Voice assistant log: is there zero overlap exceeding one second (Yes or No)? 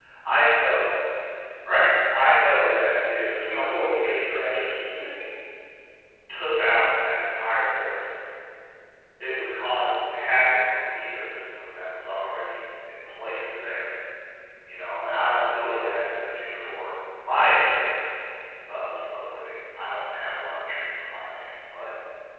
No